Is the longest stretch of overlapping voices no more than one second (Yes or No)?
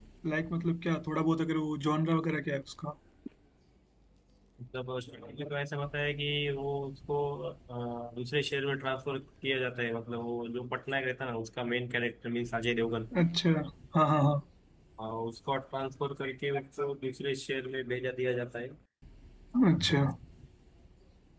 Yes